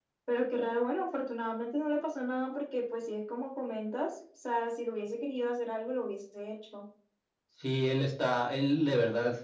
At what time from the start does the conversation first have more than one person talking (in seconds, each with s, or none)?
none